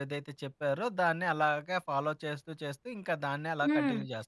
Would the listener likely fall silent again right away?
No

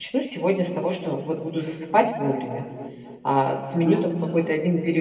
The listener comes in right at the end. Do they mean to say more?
No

